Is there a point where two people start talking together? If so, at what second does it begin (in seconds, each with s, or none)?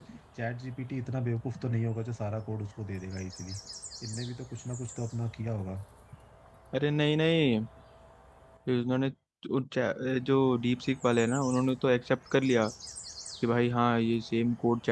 none